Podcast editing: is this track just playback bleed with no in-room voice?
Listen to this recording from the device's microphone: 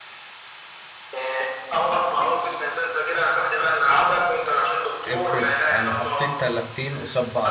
No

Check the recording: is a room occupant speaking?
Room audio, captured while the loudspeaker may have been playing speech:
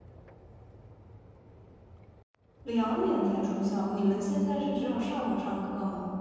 Yes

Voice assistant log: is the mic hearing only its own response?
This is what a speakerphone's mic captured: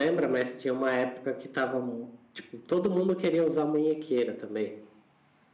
Yes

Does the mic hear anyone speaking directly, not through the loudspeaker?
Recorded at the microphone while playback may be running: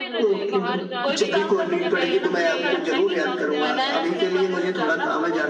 Yes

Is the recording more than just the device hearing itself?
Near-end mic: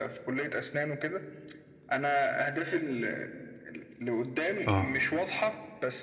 Yes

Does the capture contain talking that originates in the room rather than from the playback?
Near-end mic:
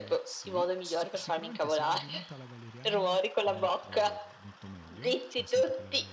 Yes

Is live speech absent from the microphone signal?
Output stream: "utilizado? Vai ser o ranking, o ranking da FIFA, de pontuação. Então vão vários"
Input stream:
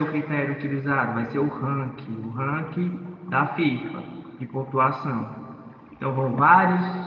Yes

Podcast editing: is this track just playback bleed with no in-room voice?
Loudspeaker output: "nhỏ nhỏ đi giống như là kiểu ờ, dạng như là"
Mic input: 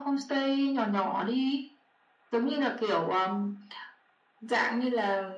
Yes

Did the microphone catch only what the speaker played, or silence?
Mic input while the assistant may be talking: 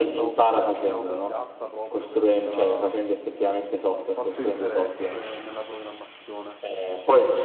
No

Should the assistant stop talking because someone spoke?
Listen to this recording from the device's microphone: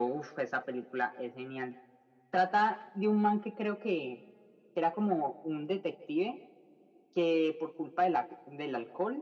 No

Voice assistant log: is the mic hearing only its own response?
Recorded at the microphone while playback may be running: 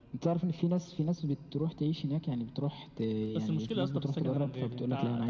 Yes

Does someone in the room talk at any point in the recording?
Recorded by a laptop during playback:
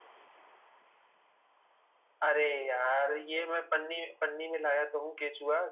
No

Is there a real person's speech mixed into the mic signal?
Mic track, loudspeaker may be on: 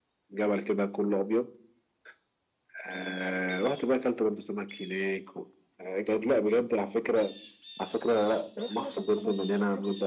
Yes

